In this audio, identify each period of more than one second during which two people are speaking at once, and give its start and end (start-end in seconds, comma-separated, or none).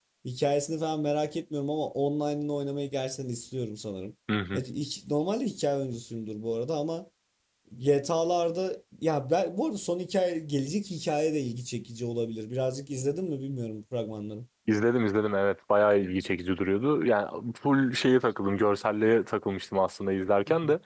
none